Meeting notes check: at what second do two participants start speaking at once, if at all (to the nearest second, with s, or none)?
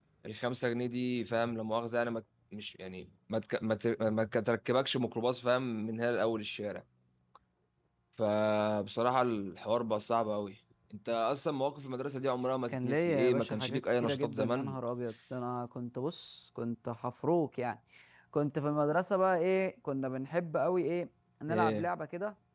13 s